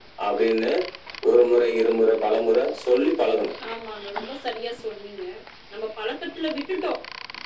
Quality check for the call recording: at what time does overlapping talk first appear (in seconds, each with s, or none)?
none